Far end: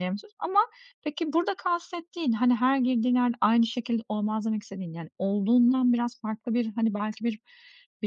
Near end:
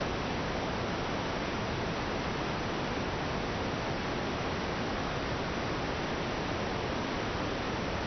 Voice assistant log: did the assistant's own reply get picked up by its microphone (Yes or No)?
No